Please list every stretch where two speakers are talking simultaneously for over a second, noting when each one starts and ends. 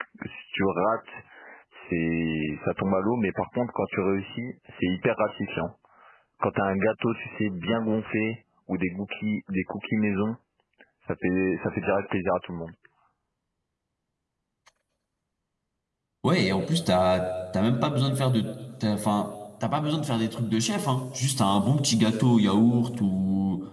none

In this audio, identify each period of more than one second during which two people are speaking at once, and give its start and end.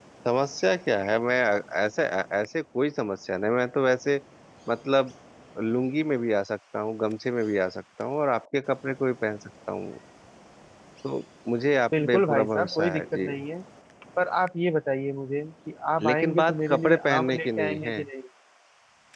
12.0-13.3, 16.0-18.0

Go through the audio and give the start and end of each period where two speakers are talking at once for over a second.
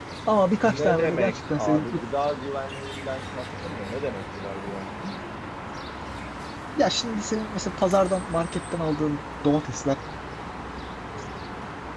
0.6-2.0

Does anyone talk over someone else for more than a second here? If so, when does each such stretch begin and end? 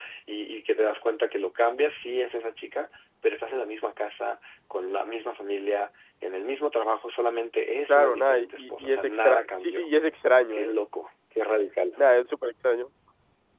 7.9-9.9

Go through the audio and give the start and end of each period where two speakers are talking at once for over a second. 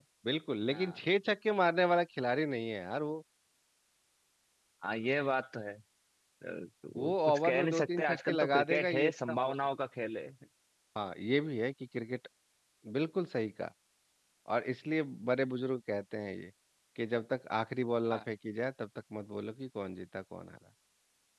7.0-9.5

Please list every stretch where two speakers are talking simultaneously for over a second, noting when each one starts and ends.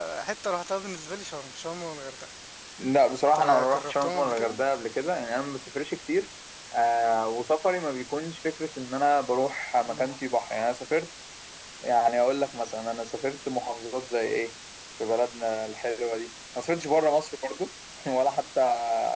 3.4-4.6

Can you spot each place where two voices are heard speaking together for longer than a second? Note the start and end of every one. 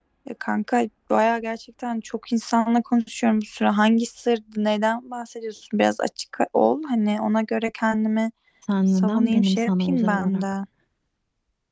8.9-10.4

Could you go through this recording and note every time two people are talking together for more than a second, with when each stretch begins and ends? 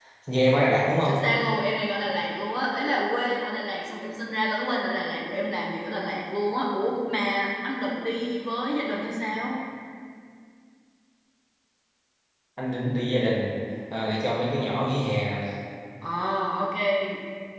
none

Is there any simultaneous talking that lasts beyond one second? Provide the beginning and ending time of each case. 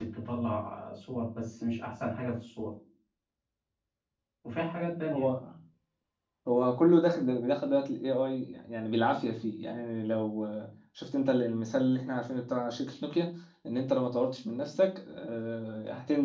none

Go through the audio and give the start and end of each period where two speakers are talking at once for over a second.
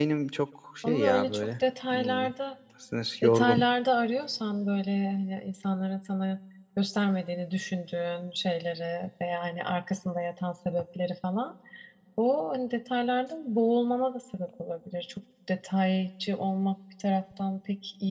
0.8-2.2

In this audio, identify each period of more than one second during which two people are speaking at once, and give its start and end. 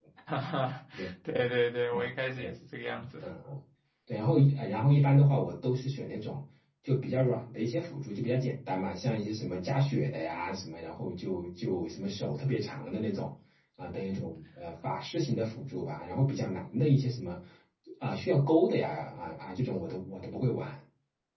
none

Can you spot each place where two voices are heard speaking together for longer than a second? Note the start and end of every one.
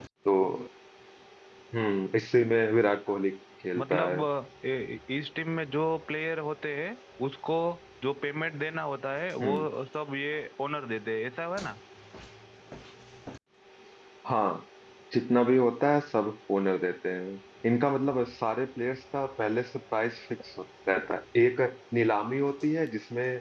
none

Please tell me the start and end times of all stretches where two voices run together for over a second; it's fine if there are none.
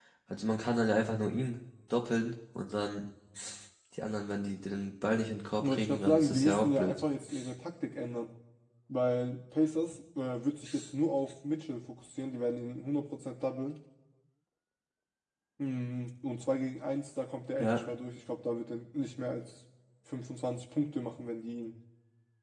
5.6-7.0

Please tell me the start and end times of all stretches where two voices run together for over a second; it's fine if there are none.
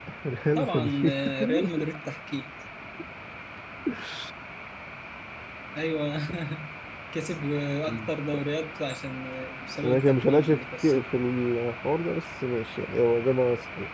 0.6-1.8, 9.8-11.0

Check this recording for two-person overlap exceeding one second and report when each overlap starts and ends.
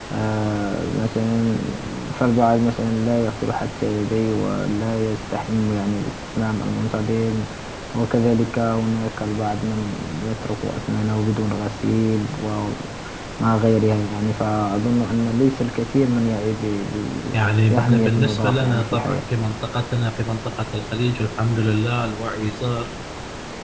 17.7-19.2

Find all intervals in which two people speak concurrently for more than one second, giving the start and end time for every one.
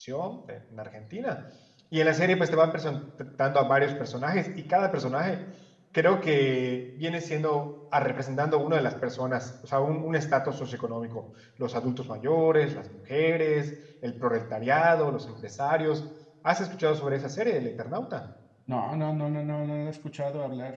none

